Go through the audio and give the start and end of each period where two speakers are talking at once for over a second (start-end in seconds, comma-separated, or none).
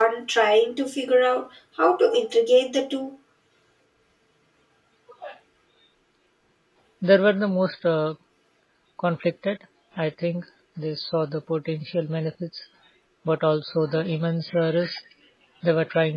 none